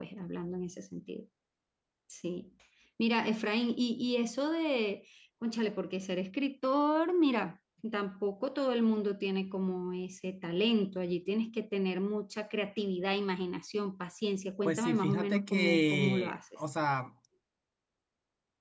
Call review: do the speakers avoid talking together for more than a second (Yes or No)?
No